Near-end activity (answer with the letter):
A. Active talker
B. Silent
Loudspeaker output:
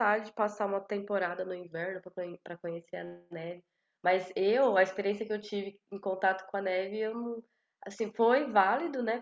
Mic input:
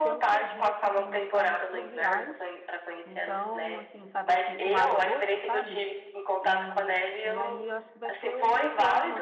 A